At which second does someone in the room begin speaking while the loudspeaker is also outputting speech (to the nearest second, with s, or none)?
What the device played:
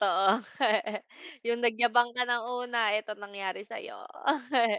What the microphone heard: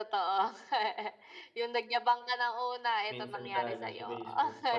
3 s